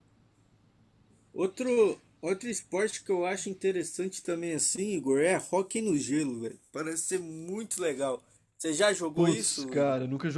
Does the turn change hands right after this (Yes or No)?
Yes